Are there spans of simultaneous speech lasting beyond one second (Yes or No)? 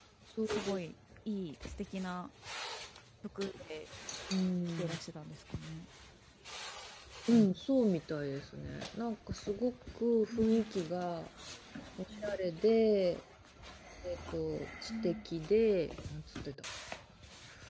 No